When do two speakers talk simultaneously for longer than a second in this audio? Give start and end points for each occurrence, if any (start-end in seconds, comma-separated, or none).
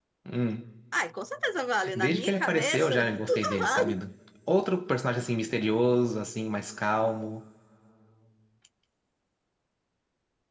2.0-4.0